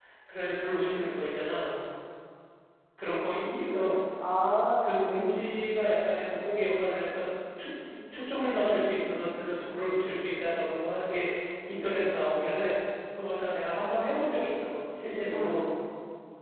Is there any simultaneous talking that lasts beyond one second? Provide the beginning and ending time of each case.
none

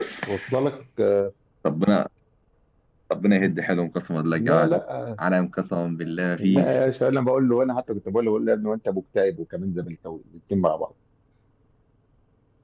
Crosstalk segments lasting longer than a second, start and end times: none

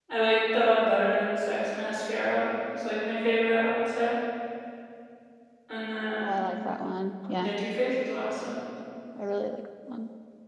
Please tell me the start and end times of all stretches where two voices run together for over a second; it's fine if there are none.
none

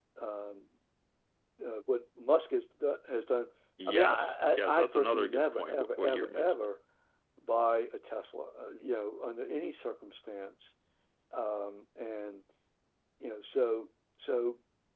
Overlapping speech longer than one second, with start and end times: 3.9-6.5

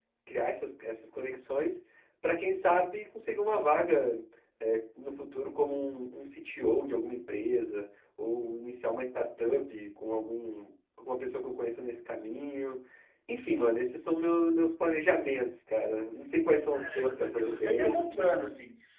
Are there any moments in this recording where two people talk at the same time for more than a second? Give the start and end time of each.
16.7-18.3

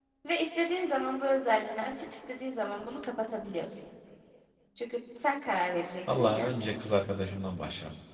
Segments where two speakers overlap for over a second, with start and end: none

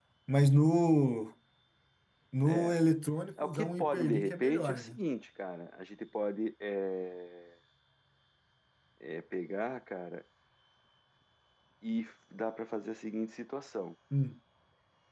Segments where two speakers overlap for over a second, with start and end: 3.4-5.0

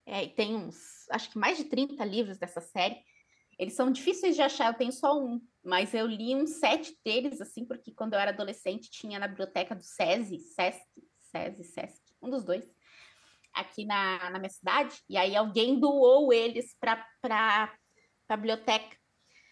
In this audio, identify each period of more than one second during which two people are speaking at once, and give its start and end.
none

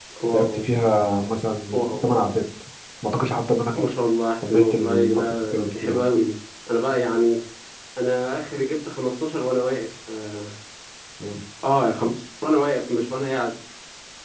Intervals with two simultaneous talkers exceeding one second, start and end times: 4.5-6.0

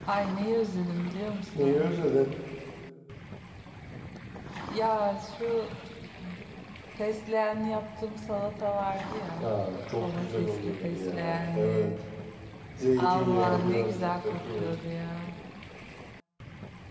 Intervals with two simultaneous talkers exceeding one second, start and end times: 10.0-11.9, 13.0-14.8

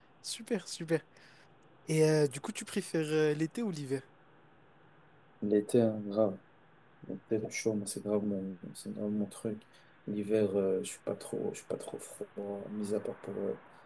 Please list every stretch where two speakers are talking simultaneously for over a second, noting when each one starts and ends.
none

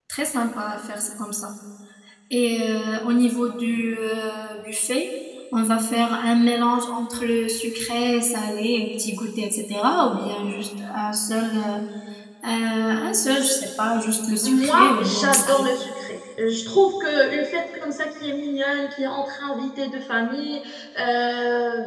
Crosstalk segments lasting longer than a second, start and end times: 14.4-15.7

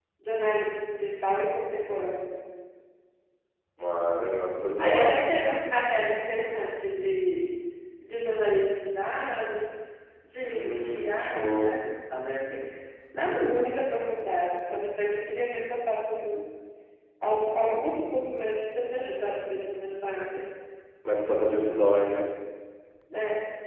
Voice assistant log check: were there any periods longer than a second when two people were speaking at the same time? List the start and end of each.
10.4-11.8

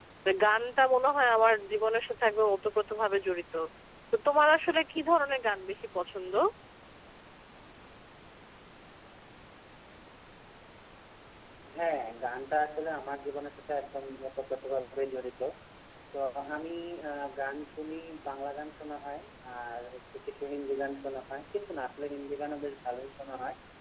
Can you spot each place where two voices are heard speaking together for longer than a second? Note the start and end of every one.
none

